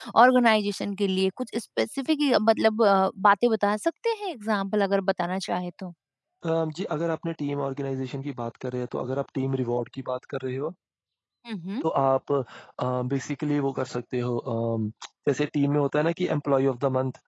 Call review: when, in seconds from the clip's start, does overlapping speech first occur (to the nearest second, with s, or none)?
none